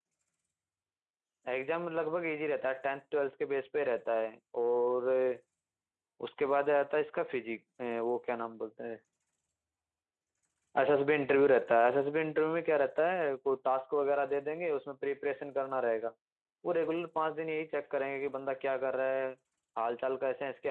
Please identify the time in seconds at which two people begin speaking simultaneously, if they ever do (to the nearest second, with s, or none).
none